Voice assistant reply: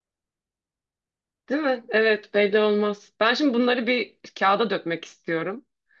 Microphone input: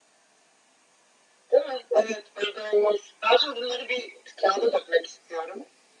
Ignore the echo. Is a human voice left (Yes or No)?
No